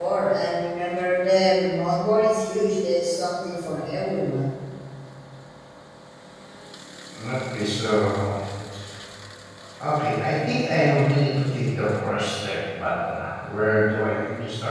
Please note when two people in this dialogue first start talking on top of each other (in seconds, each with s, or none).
none